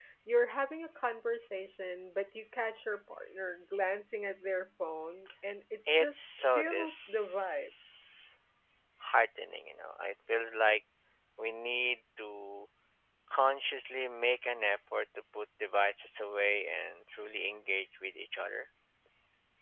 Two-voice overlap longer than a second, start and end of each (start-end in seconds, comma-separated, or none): 5.9-7.7